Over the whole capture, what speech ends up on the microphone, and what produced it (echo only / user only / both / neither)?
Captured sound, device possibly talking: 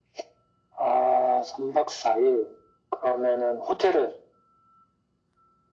echo only